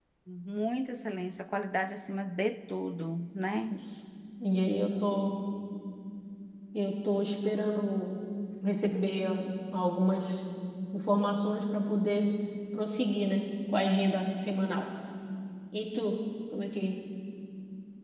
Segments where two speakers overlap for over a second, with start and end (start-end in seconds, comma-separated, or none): none